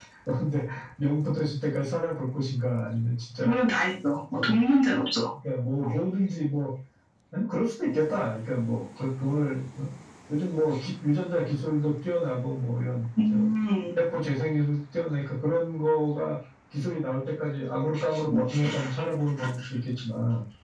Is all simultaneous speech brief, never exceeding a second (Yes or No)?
Yes